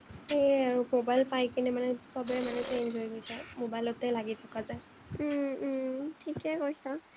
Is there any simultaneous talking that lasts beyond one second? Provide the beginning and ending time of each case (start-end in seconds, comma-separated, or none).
none